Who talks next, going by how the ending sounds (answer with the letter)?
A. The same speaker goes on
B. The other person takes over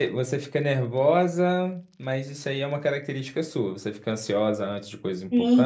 B